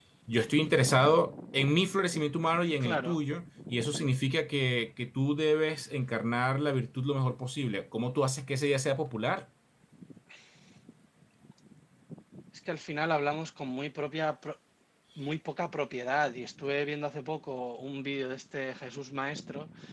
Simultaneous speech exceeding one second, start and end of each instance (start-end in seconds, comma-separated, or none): none